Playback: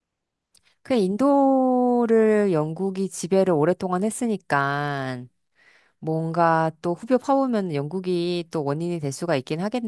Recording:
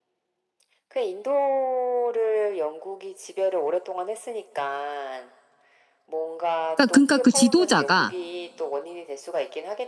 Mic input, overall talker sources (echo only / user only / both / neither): both